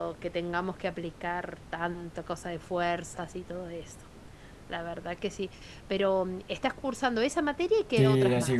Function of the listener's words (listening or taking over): taking over